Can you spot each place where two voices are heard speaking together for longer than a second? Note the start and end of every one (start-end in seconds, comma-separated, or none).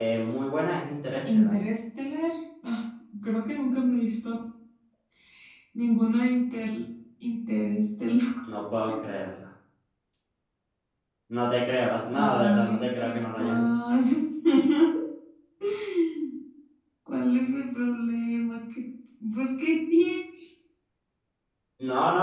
12.1-13.7